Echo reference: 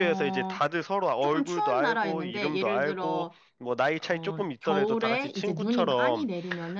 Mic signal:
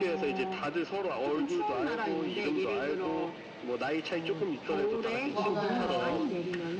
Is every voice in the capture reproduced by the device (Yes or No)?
No